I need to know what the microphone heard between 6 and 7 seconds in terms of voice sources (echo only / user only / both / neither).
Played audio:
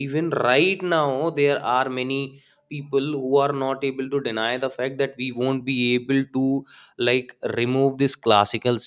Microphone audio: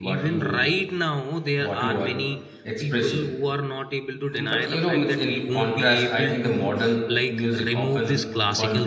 both